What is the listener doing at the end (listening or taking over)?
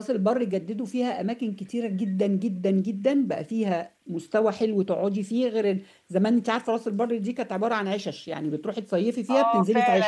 taking over